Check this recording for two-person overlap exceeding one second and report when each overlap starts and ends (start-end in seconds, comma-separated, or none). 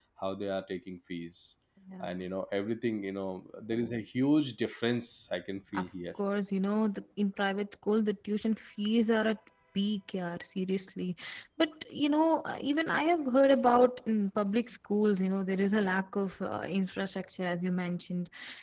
none